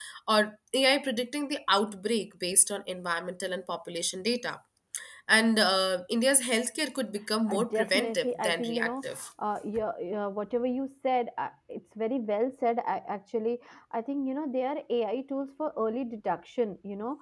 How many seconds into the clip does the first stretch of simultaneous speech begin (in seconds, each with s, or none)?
7.5 s